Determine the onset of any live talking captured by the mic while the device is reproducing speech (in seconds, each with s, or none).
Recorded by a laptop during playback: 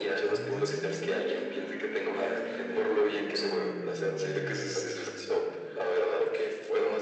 none